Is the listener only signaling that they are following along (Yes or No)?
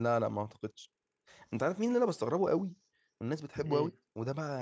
Yes